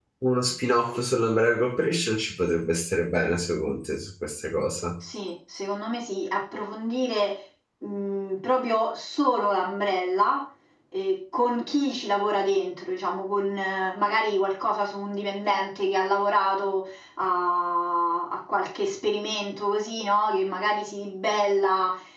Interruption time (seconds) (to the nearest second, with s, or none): none